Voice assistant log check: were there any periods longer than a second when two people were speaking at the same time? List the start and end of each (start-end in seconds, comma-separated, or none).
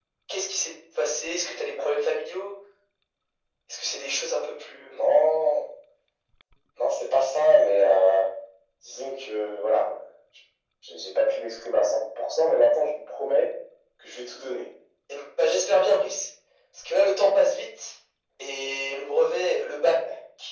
none